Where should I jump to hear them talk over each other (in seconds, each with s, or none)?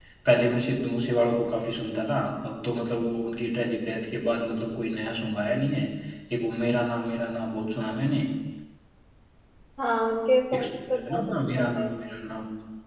10.6 s